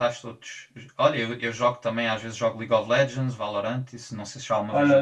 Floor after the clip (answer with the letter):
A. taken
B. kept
A